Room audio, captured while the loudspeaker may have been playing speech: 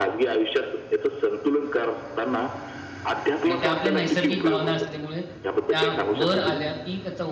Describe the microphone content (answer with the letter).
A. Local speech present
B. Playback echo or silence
A